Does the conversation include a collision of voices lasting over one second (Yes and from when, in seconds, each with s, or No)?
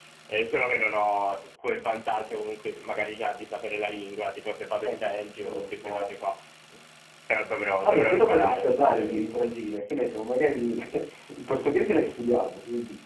Yes, from 4.8 s